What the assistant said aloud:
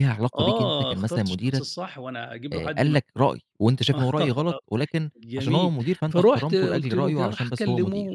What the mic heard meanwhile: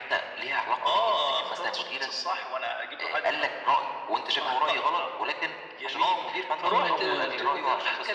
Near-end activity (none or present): present